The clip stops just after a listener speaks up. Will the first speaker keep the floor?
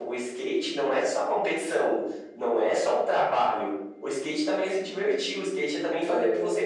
Yes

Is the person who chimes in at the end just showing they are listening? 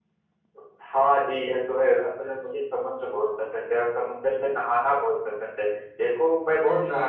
Yes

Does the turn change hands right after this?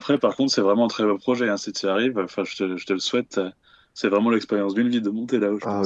Yes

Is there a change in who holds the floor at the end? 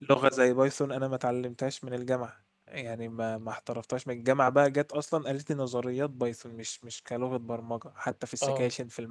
No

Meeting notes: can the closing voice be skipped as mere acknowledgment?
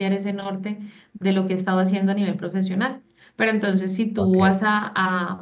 Yes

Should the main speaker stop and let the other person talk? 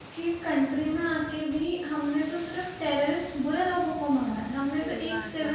No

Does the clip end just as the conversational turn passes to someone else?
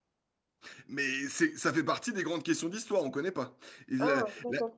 Yes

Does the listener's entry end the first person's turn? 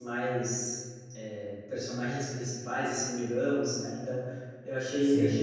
No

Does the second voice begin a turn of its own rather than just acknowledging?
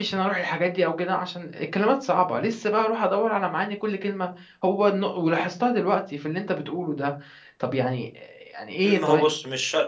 Yes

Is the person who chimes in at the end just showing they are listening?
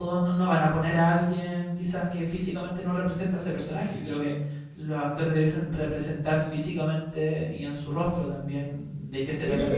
No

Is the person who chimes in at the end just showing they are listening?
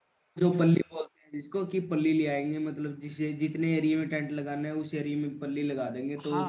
No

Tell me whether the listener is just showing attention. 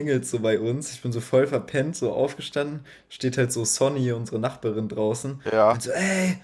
Yes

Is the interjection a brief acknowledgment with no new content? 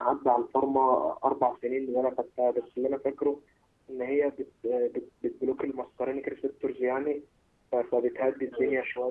Yes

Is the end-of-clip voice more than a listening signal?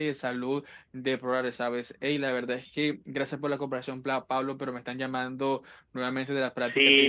Yes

